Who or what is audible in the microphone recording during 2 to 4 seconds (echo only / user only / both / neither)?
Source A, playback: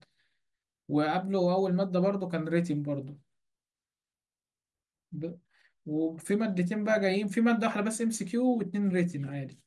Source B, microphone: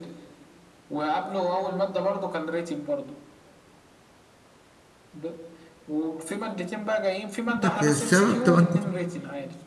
echo only